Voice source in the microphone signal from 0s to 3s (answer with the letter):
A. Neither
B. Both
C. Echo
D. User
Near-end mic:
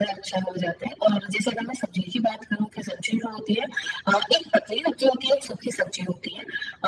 C